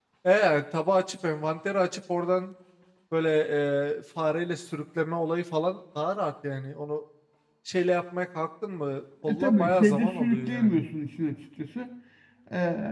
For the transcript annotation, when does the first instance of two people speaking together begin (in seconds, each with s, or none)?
9.3 s